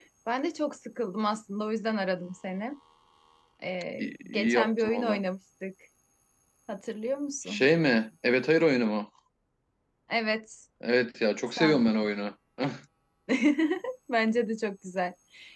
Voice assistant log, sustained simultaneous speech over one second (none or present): present